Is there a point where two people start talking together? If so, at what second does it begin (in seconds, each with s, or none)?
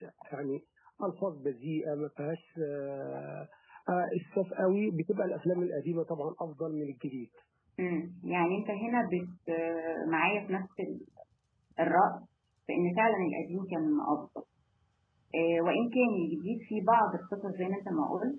none